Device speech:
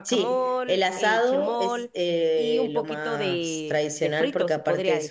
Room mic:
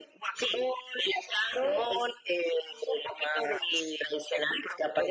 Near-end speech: none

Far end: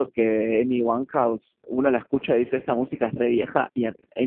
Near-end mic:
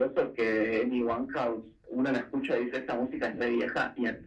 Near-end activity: none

